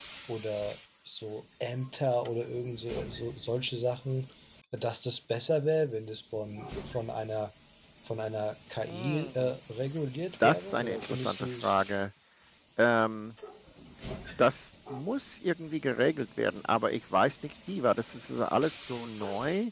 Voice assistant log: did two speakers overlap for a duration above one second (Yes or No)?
Yes